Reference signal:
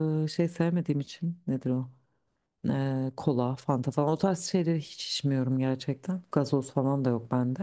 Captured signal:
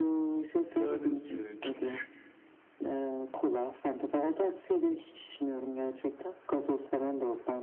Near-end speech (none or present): present